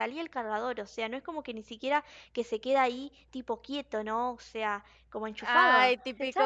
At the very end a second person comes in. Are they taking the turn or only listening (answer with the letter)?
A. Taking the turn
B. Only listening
A